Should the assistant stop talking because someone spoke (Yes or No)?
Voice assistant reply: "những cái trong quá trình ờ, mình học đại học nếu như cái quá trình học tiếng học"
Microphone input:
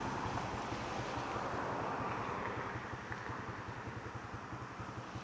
No